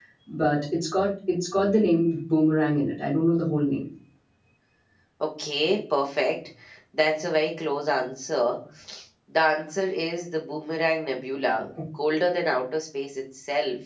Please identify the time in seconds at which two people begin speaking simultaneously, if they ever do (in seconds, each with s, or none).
none